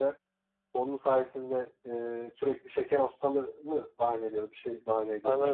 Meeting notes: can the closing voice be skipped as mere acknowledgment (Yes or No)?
No